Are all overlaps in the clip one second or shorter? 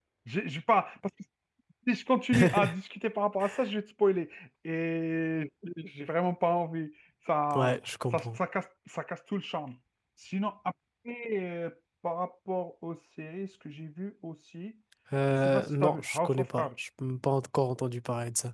No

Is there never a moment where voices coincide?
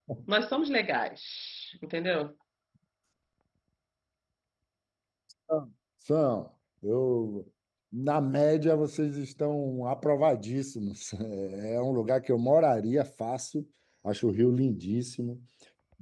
Yes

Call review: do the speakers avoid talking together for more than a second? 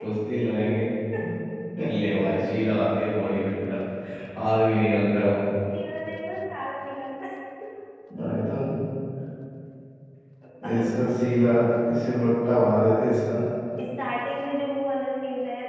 Yes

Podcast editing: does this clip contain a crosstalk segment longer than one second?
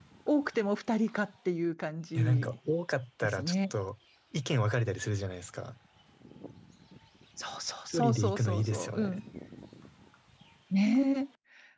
Yes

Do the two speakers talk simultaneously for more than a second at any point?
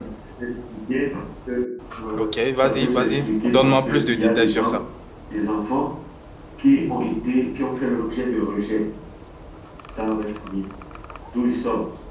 Yes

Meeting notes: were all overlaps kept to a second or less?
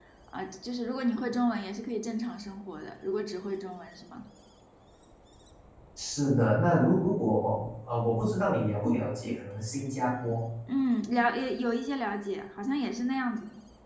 Yes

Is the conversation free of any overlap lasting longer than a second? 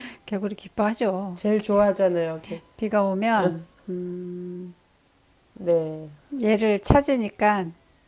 Yes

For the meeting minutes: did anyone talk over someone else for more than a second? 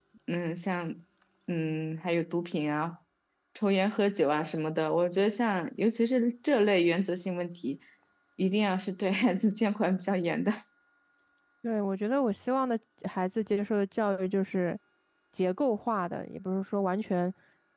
No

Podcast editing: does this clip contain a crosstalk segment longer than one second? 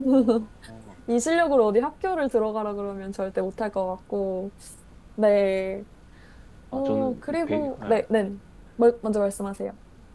Yes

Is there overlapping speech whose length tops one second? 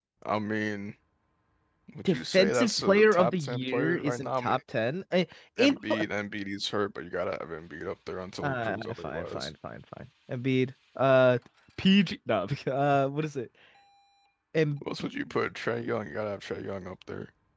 Yes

